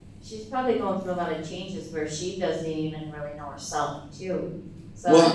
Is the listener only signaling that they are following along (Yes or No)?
Yes